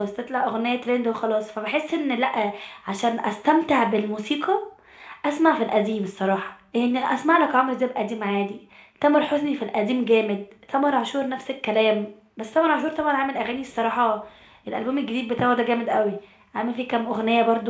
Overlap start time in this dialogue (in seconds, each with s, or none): none